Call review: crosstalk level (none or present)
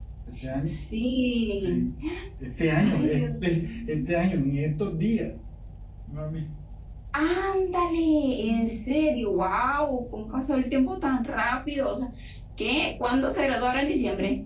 present